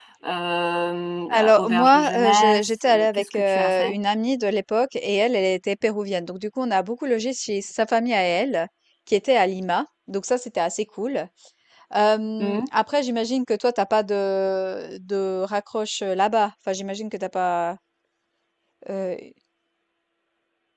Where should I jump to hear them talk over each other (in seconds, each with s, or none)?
1.3 s